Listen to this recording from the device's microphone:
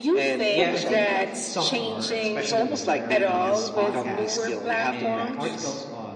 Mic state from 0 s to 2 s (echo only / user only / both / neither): both